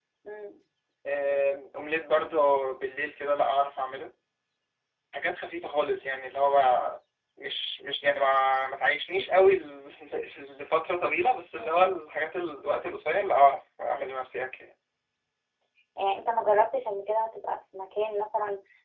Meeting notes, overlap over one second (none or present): none